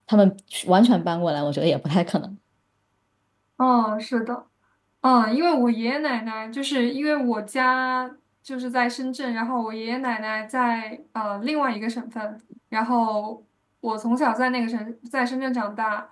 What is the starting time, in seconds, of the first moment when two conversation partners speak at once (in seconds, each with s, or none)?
none